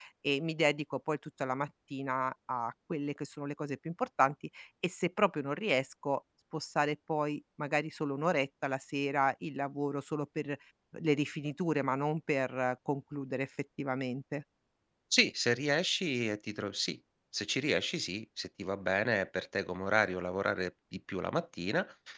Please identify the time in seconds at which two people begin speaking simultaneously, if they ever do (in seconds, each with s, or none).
none